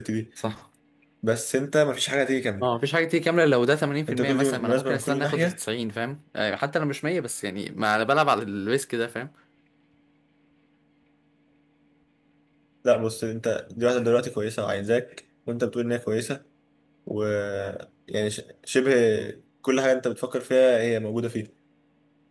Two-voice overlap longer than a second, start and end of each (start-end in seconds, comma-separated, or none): 4.1-5.6